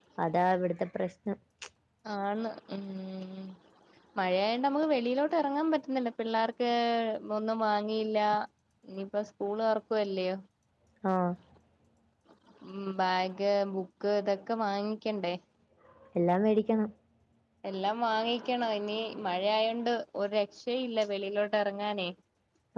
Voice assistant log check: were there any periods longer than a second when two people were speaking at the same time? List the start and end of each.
none

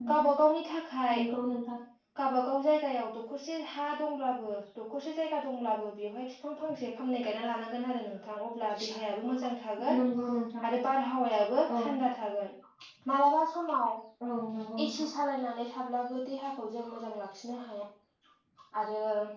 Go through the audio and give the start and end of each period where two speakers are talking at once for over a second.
none

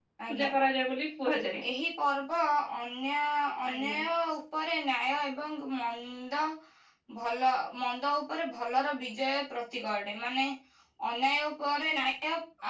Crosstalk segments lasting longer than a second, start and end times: none

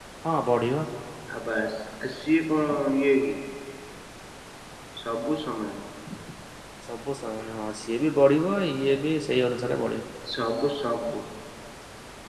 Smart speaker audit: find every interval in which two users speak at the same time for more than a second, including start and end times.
none

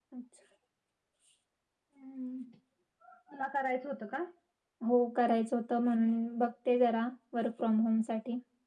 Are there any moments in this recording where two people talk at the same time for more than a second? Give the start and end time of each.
none

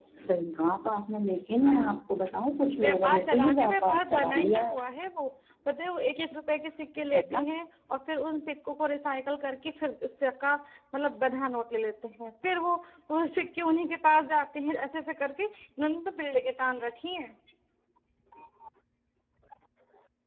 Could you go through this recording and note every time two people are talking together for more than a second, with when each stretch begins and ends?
2.8-4.8

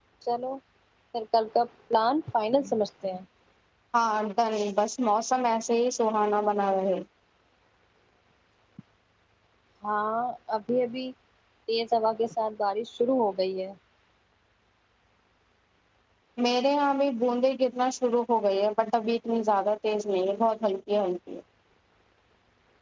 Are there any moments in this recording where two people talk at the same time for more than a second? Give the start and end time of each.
none

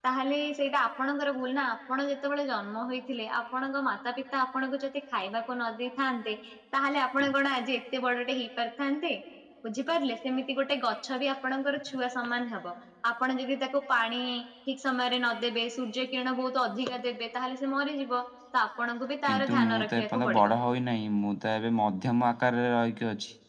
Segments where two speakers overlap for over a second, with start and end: 19.3-20.5

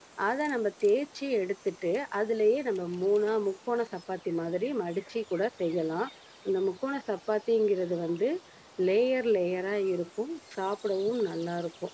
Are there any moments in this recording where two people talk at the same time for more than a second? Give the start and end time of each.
none

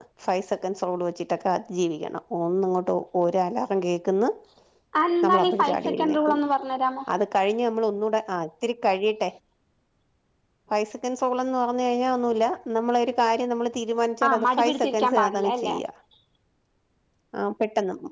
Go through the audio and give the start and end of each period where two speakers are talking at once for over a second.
5.2-6.4, 14.2-15.7

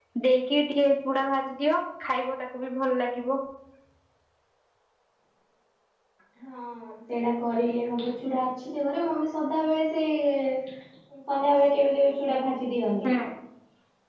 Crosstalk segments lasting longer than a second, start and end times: none

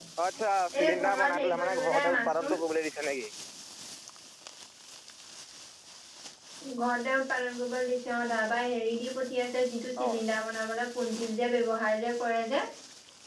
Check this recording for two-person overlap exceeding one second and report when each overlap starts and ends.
0.8-2.6

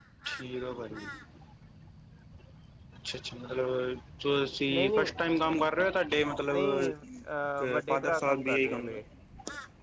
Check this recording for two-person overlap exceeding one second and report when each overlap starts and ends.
7.6-9.0

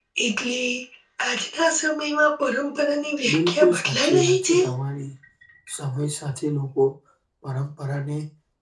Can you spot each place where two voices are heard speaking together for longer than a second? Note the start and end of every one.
3.3-4.6

